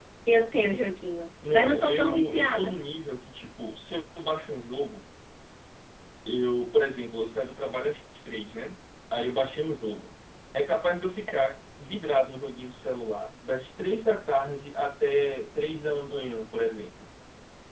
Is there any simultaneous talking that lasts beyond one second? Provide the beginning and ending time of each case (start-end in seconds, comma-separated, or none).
1.5-2.8